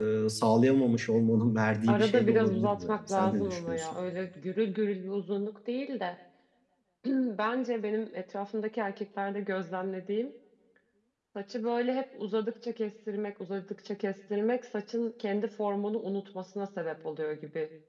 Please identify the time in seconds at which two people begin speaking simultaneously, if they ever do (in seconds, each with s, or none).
1.9 s